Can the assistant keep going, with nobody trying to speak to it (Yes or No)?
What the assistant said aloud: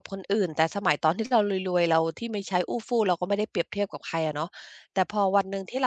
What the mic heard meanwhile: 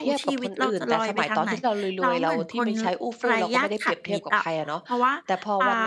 No